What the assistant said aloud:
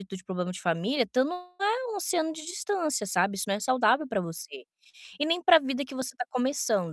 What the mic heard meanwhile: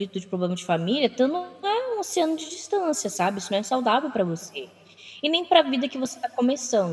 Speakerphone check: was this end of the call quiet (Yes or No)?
Yes